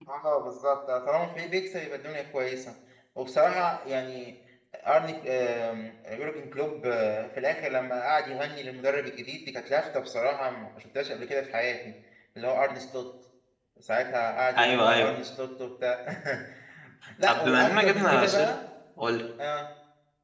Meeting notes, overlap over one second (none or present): present